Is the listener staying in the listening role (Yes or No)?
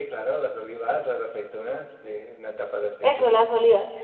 No